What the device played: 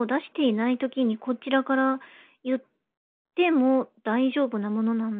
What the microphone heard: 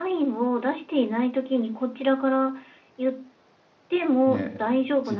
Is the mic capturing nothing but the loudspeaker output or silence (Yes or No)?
No